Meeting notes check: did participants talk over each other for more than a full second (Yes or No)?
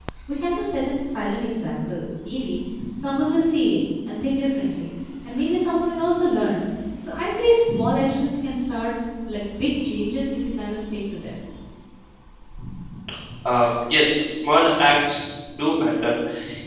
No